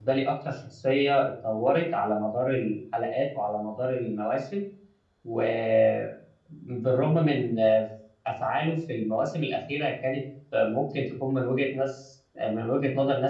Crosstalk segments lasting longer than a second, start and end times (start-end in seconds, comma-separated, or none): none